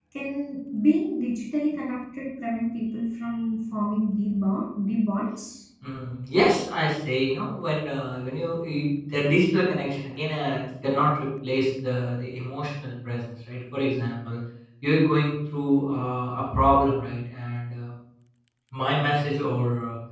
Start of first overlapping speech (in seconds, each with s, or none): none